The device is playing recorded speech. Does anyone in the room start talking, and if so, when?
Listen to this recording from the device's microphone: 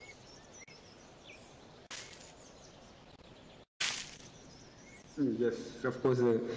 5.2 s

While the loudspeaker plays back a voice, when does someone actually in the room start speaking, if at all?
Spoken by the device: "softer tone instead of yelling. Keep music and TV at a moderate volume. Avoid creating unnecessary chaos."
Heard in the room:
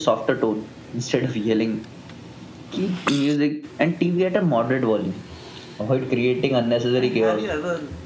6.9 s

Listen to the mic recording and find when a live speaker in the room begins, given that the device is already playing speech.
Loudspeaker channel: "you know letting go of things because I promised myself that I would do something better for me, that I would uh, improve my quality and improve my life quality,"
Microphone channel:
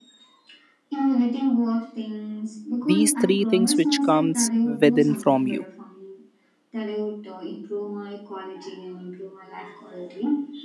2.8 s

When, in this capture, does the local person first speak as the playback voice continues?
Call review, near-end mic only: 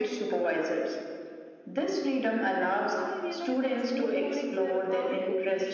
2.6 s

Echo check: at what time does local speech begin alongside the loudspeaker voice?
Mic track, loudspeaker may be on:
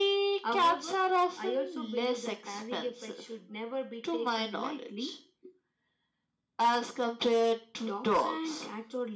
none

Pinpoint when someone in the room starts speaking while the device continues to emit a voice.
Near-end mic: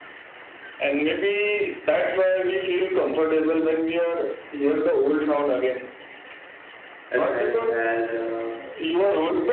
7.1 s

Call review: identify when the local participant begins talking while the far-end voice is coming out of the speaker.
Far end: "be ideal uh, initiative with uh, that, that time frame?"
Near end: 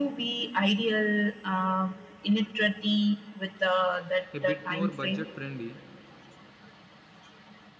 4.3 s

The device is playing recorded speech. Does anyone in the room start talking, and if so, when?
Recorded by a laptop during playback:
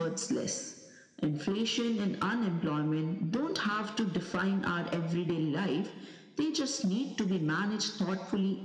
none

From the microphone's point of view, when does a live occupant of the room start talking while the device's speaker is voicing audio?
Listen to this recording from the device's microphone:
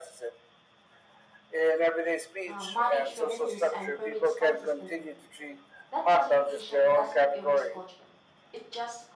2.4 s

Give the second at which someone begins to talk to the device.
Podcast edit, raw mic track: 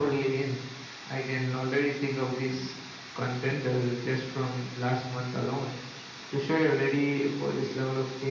none

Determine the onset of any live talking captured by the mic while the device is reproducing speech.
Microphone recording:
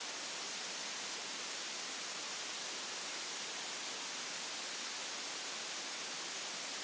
none

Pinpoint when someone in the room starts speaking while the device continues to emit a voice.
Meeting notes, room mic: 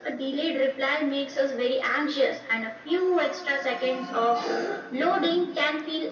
none

